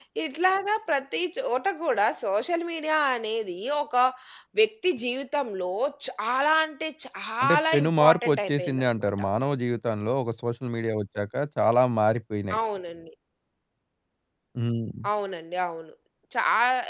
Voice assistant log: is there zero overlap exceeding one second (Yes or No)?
No